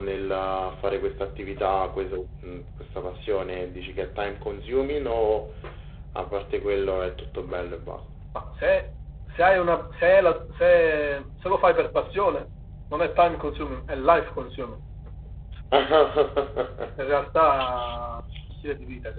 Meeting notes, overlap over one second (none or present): none